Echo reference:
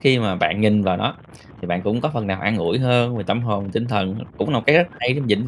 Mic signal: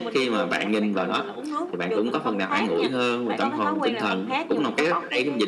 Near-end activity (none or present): present